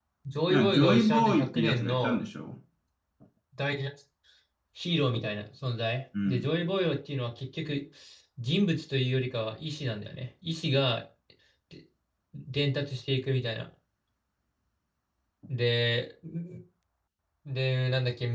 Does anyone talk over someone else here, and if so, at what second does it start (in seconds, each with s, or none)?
0.5 s